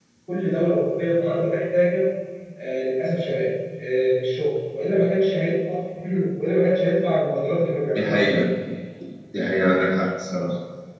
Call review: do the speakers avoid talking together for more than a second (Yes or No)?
Yes